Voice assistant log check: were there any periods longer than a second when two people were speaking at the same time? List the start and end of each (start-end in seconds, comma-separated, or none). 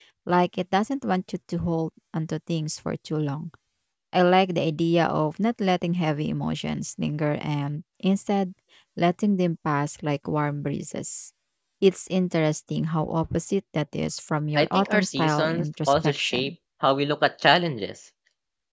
14.6-16.5